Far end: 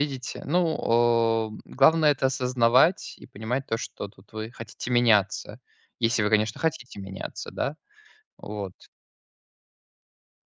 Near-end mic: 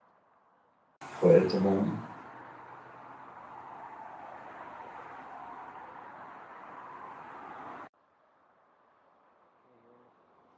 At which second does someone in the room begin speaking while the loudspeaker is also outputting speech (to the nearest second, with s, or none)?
1 s